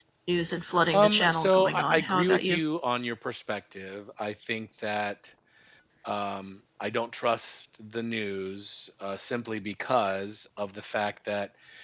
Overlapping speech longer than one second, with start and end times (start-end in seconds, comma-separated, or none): 0.9-2.6